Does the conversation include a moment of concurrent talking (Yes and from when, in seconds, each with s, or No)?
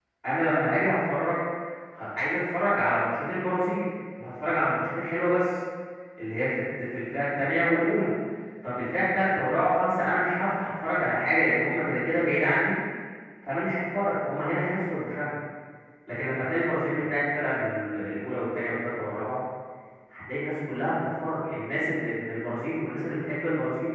No